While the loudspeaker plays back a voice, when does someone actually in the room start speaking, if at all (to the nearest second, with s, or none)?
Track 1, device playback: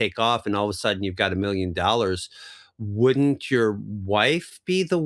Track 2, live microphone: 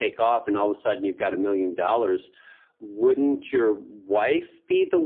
none